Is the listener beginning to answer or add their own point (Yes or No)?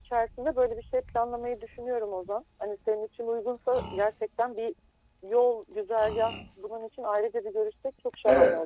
Yes